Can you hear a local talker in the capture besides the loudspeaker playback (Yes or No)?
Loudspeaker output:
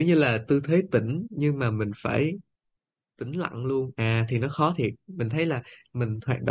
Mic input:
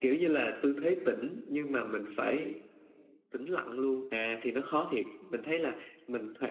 No